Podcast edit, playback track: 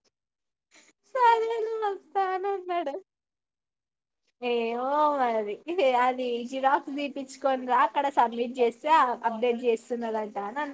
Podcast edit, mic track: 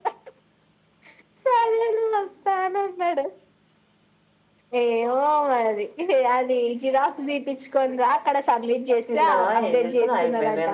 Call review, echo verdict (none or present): present